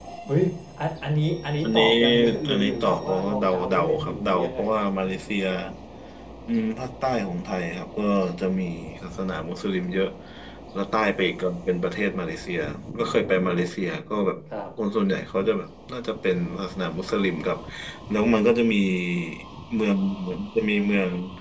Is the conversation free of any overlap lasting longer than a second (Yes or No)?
No